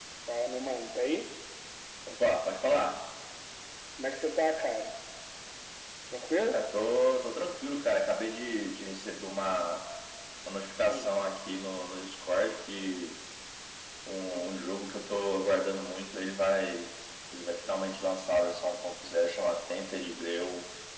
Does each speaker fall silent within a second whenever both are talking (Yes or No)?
Yes